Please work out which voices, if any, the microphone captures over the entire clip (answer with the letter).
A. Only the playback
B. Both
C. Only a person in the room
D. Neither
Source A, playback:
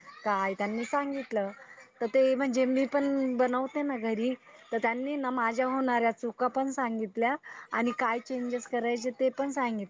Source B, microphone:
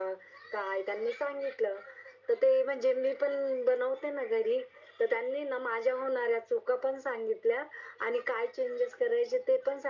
A